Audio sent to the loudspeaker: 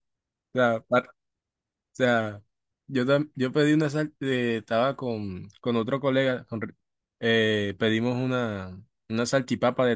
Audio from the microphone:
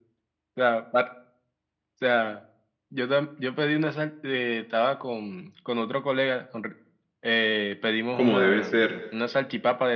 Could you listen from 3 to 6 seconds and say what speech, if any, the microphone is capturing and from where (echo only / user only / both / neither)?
echo only